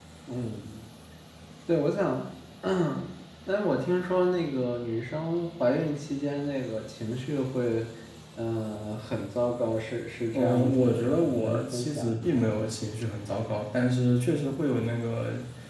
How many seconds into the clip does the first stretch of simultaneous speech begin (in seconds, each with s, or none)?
10.3 s